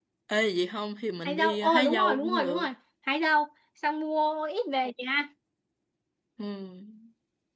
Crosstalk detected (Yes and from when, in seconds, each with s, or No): Yes, from 1.2 s